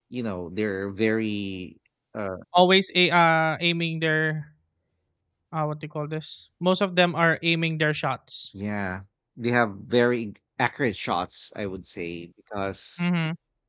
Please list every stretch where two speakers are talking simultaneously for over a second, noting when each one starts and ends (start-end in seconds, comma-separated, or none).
none